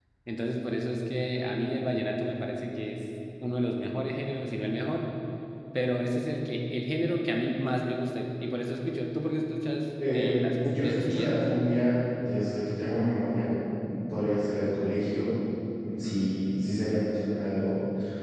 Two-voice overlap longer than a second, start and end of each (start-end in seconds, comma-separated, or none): 10.1-11.4